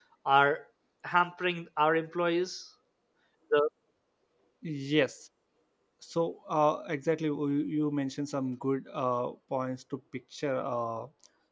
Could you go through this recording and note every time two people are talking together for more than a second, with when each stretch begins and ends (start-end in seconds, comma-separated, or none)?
none